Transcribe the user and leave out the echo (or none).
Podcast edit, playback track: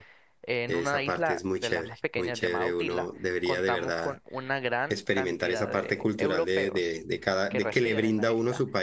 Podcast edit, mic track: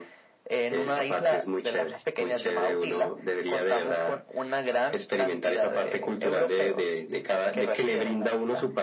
none